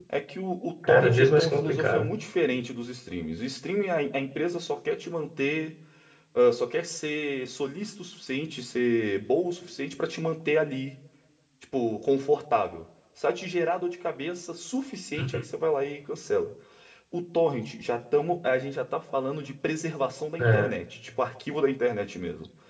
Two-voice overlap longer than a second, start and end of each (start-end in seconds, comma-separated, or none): 0.9-2.1